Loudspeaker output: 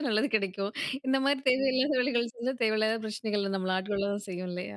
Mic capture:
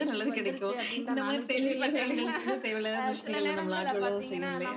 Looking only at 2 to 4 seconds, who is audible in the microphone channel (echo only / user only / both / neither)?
both